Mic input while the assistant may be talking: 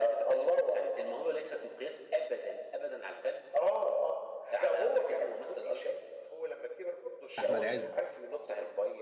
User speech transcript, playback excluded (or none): أحمد عز.